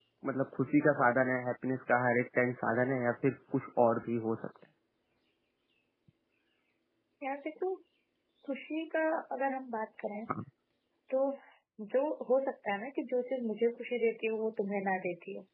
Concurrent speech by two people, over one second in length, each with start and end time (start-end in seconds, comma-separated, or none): none